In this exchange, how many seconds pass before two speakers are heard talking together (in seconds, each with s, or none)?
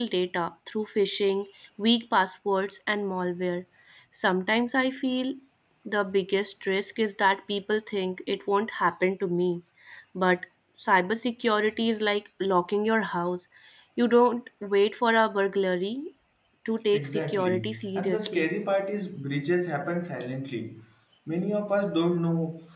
16.9 s